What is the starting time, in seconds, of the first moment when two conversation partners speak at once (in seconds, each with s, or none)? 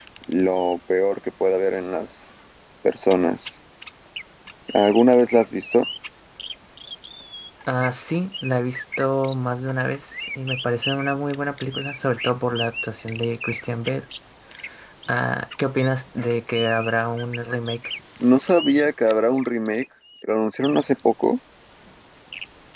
none